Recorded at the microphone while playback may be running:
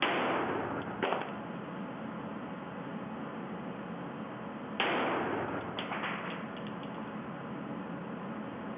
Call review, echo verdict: none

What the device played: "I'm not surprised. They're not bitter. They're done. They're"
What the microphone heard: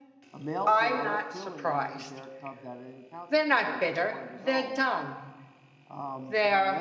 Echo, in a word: present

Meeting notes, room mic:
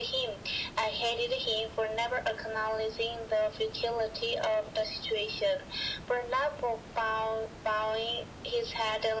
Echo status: present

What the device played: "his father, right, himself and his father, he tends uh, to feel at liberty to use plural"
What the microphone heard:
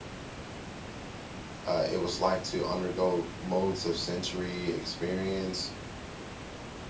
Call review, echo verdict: none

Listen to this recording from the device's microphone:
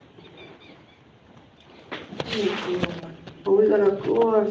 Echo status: none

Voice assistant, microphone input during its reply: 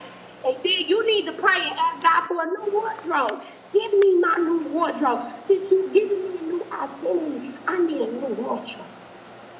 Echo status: present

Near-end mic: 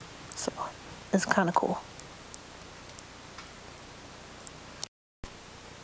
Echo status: none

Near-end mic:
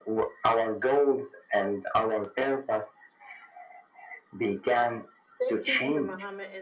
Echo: present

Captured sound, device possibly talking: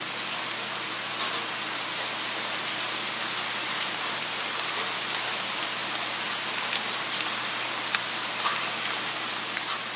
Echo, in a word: none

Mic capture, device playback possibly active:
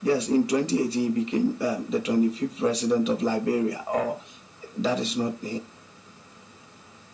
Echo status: present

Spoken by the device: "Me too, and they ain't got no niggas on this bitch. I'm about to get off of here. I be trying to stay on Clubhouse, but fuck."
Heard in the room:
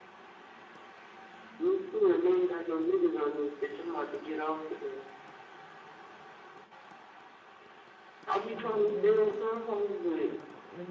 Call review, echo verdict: present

